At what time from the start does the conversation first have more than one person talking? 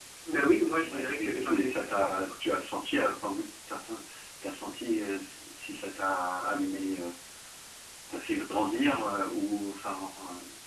0.9 s

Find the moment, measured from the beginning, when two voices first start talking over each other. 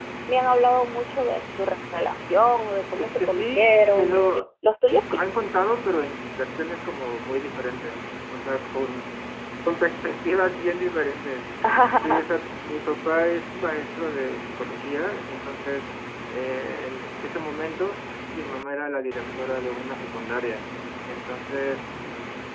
3.0 s

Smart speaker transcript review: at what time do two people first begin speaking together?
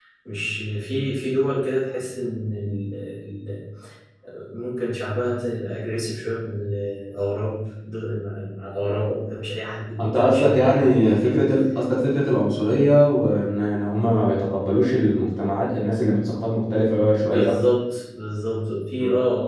10.0 s

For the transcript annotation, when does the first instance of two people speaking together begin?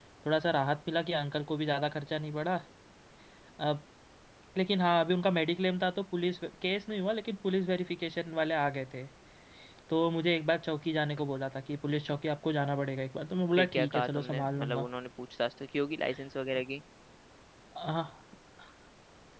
13.6 s

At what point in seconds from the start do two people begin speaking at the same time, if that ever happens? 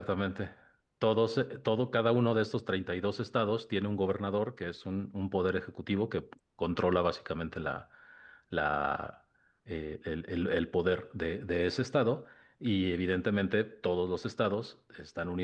none

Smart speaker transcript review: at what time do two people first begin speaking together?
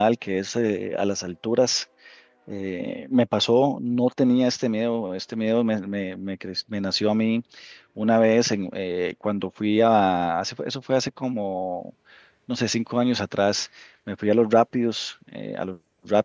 none

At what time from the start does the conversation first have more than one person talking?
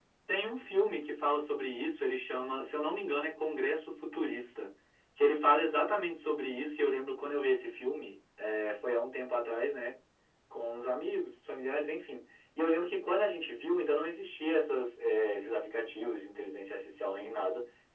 none

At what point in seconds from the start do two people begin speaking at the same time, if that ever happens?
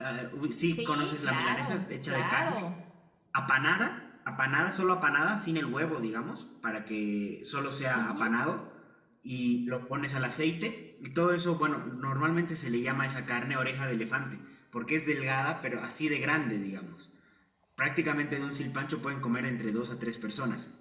0.8 s

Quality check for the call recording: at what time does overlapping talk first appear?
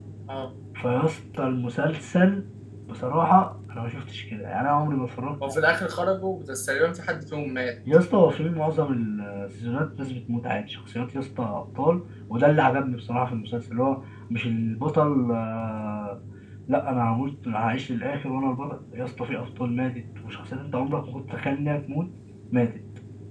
none

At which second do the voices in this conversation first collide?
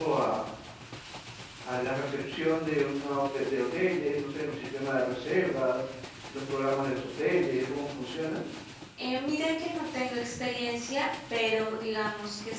none

